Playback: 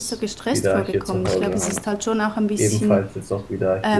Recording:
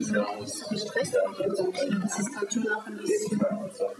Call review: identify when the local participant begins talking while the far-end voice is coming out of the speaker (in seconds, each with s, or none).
none